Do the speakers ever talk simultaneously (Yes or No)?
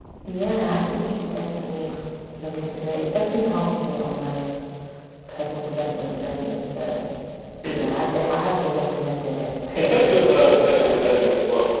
Yes